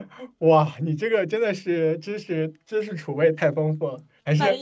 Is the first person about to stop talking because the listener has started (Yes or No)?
No